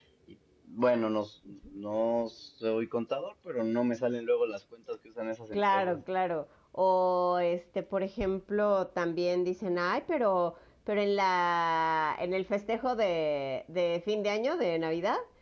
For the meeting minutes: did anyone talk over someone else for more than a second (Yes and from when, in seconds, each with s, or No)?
No